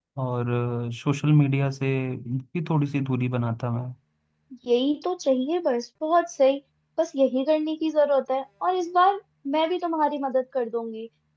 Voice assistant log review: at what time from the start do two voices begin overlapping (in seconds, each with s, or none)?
none